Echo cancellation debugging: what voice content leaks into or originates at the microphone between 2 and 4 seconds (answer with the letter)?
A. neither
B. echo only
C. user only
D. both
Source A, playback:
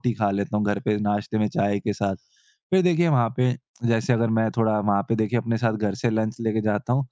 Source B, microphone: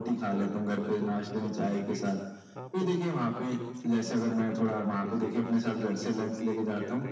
D